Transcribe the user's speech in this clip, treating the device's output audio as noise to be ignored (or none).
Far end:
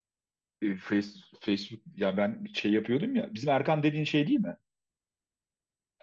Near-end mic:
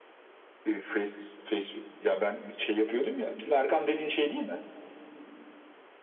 none